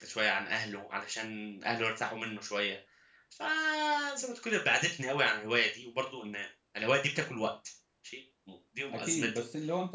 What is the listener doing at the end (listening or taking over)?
taking over